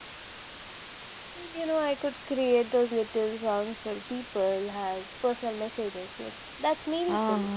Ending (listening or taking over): taking over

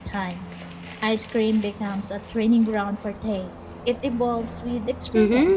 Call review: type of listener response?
taking over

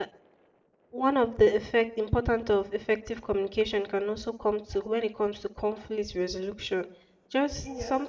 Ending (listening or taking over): listening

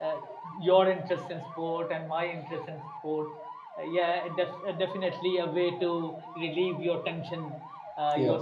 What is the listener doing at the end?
listening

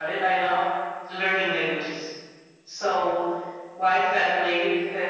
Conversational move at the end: listening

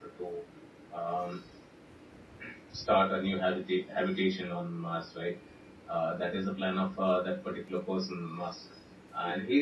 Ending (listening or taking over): listening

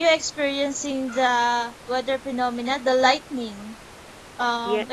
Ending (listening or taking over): listening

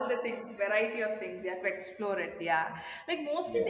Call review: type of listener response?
listening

